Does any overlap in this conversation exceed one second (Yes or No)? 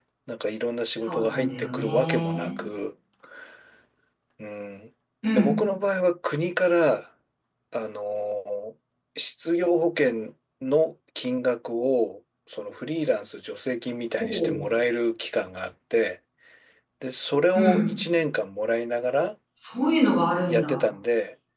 Yes